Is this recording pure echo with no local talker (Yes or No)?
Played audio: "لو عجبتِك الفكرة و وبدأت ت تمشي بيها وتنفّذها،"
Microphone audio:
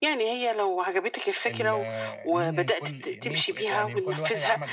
No